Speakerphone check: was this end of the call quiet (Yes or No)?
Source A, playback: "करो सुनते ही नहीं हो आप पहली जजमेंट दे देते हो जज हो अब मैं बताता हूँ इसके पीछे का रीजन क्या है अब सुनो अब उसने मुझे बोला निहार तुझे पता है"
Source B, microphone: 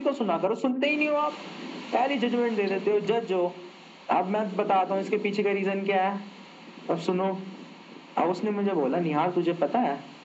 No